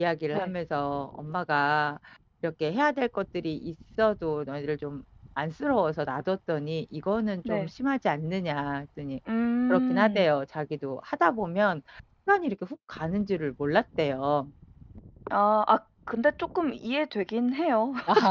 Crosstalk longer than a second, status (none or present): none